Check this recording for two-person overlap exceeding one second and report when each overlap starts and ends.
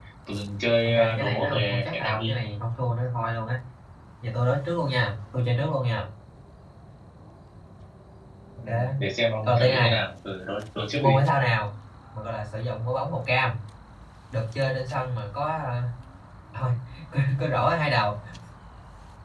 0.8-2.4

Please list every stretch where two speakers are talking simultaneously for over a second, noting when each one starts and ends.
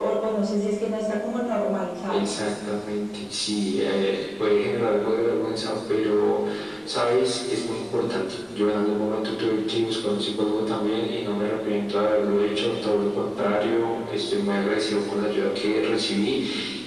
none

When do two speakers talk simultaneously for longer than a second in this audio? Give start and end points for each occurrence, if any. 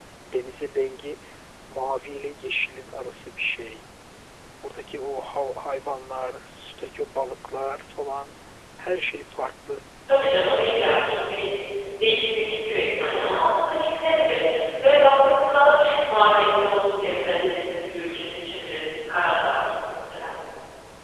none

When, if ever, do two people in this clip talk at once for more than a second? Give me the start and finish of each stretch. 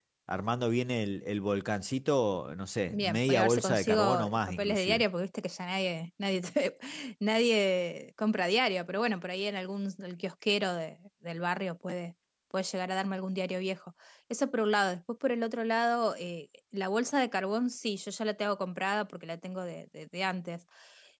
2.9-5.0

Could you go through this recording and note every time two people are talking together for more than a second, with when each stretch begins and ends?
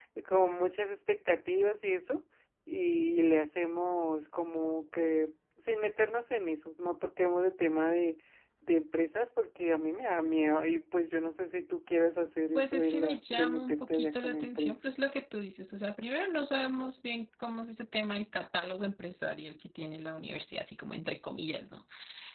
12.6-14.7

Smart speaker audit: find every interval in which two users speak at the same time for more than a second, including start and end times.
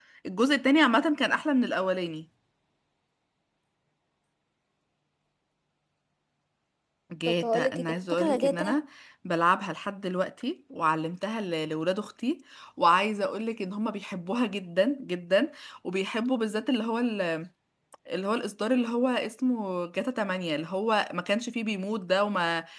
7.3-8.8

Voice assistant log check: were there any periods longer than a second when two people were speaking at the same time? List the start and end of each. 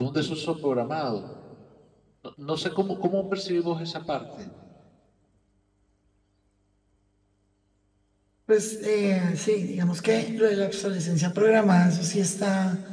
none

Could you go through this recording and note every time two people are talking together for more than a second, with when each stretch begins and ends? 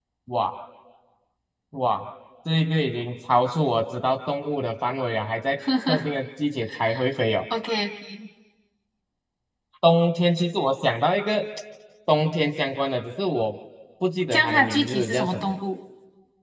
14.3-15.5

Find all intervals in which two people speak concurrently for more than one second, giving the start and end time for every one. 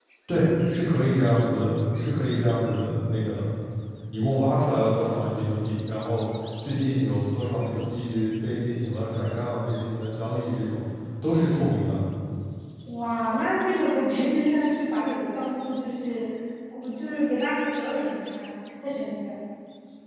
none

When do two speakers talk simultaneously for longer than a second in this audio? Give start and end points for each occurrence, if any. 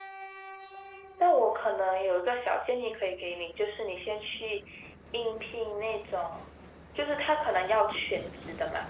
none

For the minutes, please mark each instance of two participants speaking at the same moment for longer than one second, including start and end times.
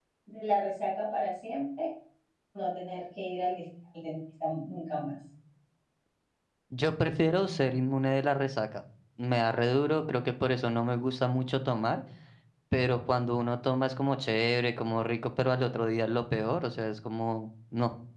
none

